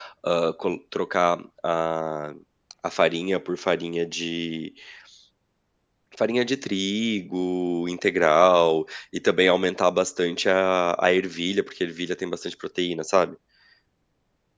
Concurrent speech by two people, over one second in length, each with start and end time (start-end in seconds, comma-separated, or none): none